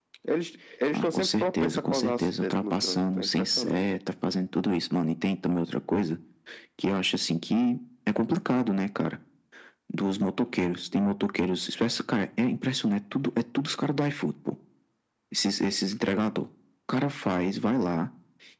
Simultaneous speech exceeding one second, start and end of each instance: 0.9-3.8

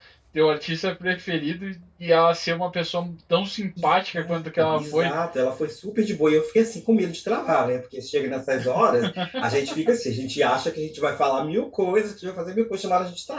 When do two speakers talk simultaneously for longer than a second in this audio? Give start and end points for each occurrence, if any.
3.8-5.1

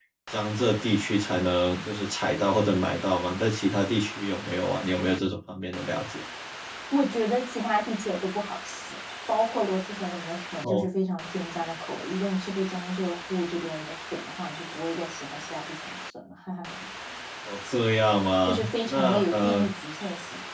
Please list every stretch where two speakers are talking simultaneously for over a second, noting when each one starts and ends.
18.4-19.7

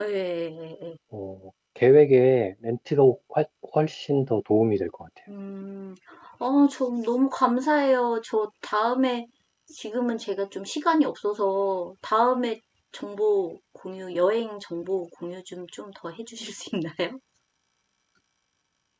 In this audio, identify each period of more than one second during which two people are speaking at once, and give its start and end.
none

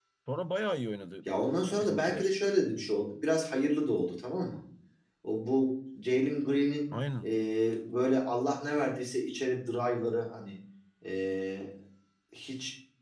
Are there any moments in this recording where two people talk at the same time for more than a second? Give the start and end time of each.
none

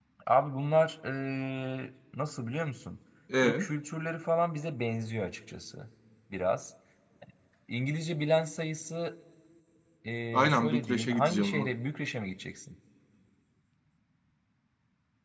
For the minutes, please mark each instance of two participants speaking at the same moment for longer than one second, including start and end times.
10.3-11.7

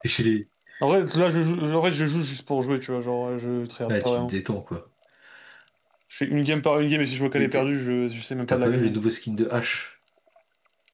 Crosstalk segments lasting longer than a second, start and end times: none

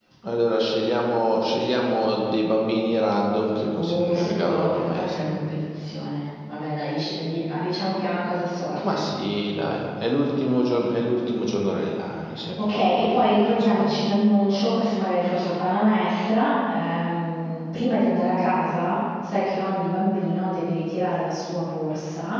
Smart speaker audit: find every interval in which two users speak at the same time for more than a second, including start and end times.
3.7-5.3, 12.6-14.1

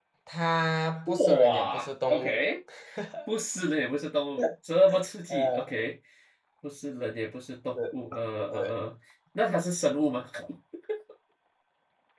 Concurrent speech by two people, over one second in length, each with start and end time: 1.1-2.4

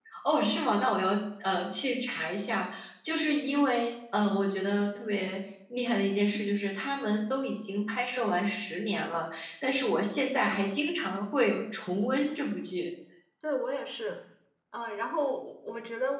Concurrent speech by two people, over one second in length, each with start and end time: none

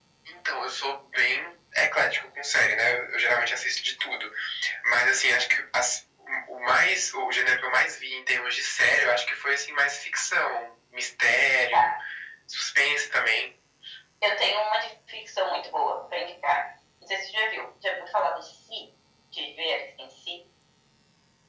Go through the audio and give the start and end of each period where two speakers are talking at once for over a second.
none

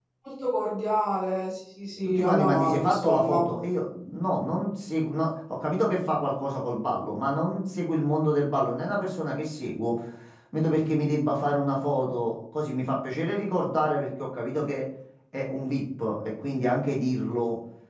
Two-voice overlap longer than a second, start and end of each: 2.2-3.5

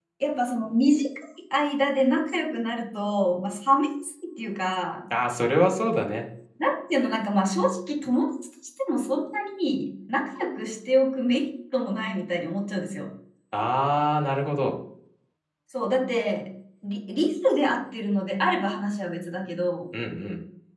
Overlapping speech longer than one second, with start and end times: none

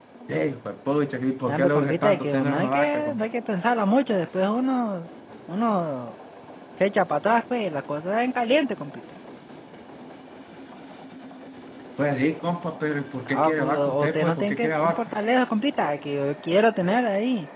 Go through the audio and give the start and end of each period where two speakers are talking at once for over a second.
1.5-3.3, 13.3-15.2

